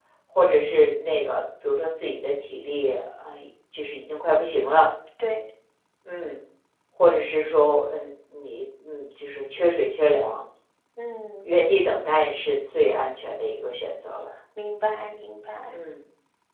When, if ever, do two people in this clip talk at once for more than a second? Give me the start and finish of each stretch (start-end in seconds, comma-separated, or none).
none